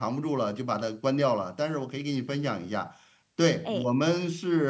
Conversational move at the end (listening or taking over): listening